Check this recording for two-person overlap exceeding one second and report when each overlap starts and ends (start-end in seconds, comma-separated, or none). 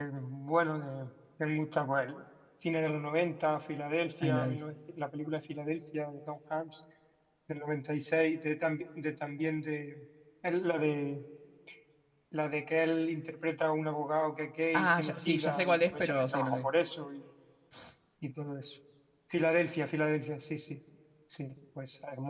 14.7-16.7